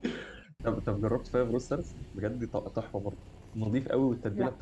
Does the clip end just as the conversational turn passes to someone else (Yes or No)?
No